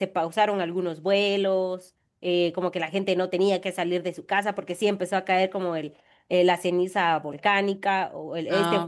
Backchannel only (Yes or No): Yes